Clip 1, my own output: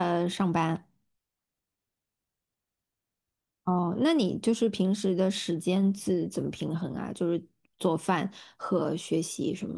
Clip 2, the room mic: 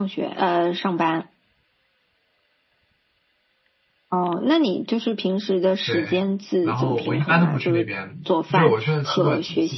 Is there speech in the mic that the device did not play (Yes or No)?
Yes